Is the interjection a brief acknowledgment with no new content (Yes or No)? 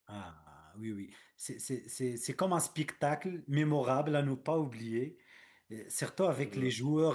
Yes